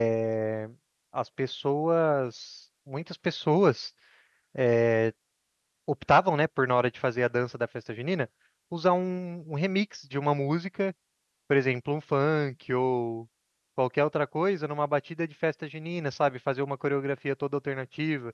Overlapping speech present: No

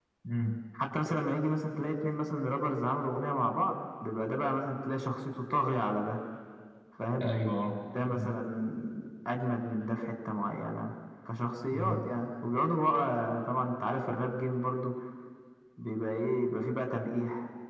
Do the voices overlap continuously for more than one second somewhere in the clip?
No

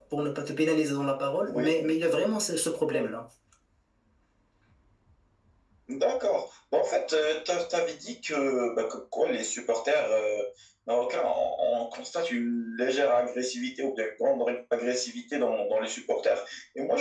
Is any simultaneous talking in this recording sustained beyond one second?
No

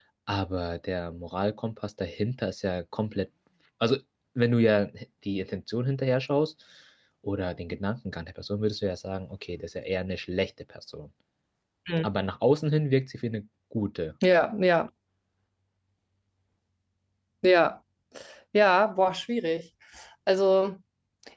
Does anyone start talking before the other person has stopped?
No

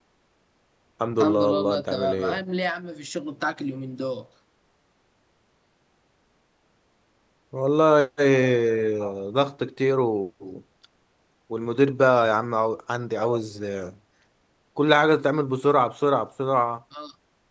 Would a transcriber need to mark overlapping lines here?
Yes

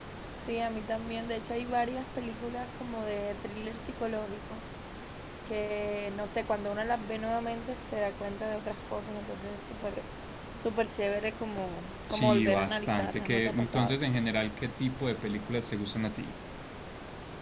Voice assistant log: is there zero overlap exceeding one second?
No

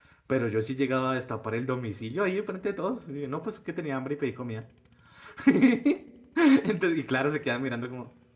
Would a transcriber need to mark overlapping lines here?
No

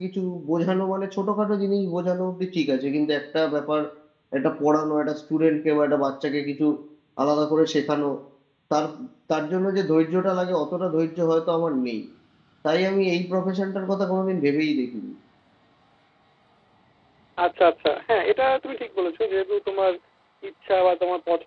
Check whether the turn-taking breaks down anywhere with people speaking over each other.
No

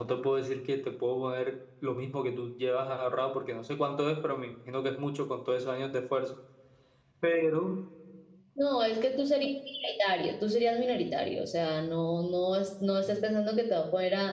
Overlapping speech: No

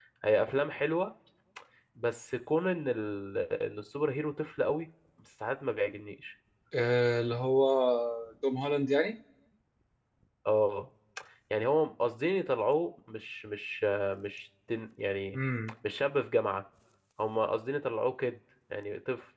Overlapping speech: No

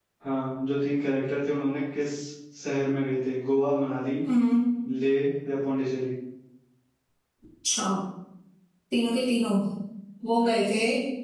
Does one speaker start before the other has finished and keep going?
No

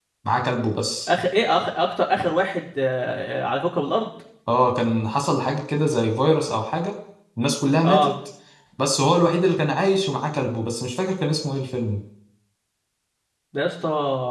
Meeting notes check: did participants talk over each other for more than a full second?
No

